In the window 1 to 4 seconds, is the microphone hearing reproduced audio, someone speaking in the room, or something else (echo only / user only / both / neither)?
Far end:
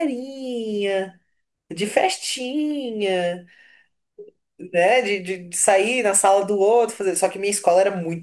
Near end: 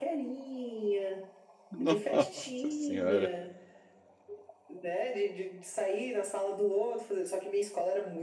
both